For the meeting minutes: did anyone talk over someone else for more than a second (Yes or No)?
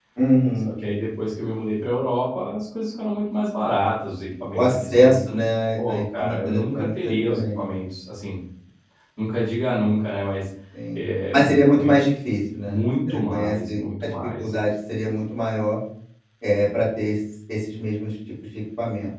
Yes